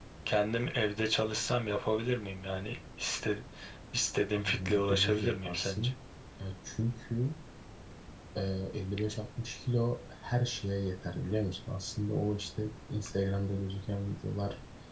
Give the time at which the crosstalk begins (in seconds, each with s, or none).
4.3 s